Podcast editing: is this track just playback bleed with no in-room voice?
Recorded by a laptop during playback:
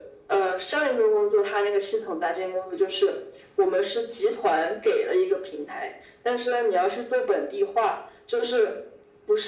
Yes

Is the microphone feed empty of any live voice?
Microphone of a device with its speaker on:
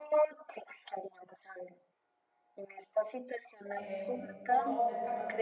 No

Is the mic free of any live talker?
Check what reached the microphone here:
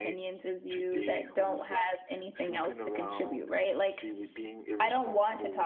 No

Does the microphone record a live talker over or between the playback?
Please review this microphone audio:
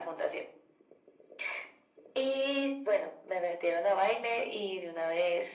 No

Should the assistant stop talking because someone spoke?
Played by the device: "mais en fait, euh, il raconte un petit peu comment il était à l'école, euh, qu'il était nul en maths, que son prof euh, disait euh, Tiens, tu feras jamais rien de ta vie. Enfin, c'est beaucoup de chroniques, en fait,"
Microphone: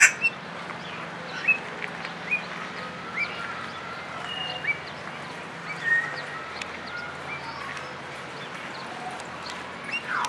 No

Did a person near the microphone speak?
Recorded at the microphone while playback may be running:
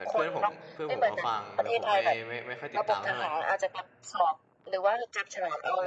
Yes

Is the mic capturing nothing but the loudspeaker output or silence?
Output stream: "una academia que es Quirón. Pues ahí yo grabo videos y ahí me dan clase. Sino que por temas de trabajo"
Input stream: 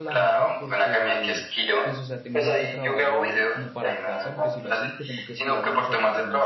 No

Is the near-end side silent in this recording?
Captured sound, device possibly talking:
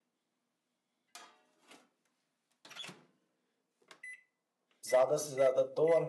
No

